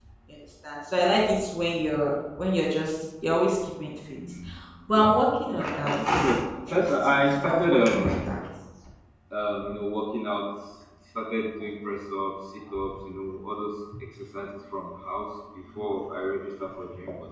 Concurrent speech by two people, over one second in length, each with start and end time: 6.7-8.3

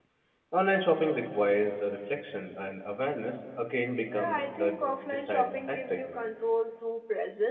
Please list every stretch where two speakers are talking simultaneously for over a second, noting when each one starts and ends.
4.1-6.2

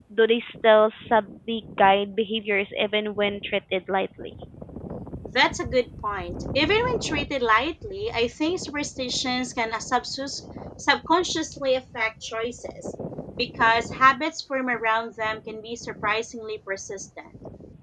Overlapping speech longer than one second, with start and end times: none

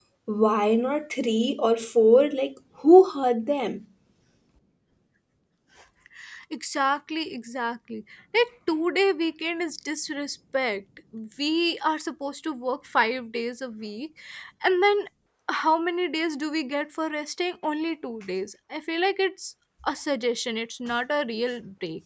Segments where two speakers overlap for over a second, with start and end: none

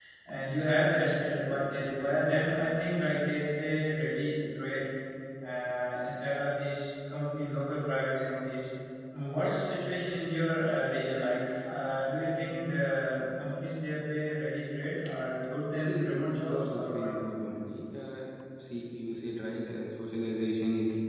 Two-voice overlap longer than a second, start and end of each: 15.7-17.1

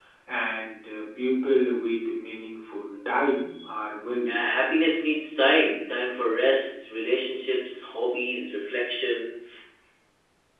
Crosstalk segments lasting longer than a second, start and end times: none

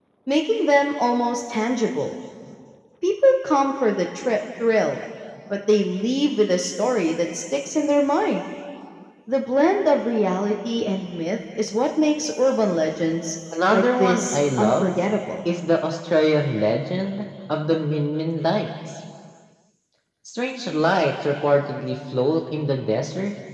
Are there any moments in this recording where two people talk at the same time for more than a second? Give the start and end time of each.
13.7-15.0

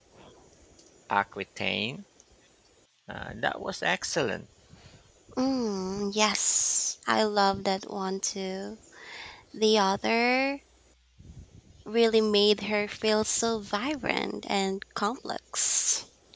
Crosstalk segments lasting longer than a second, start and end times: none

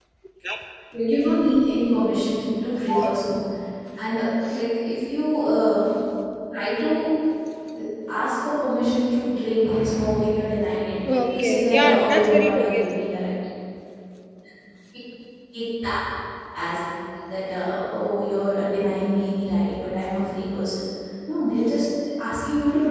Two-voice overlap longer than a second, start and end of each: 11.1-12.9

